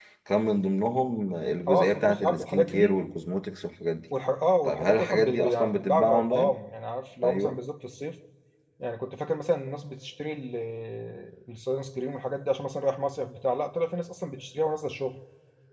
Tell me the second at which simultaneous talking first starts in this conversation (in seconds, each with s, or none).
1.7 s